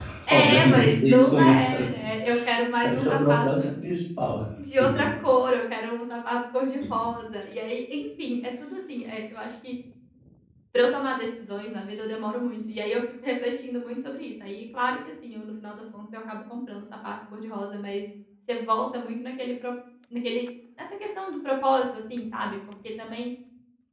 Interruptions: present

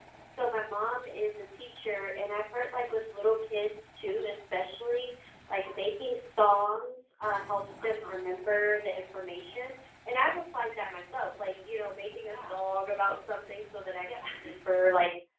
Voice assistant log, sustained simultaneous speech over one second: none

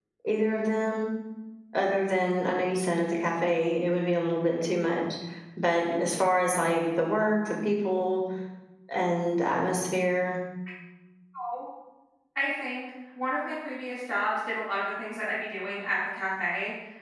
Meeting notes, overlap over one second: none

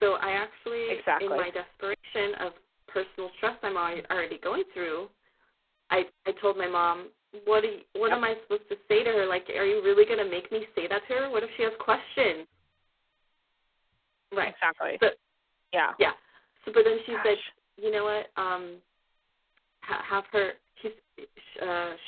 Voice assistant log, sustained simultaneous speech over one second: none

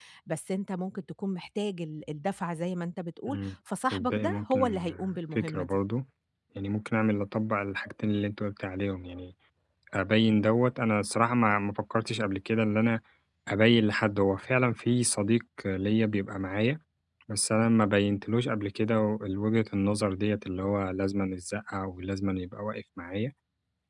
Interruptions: present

